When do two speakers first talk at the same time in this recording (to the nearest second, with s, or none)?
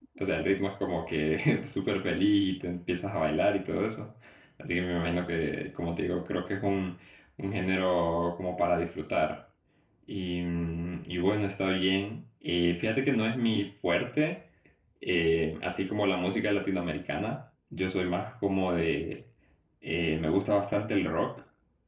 none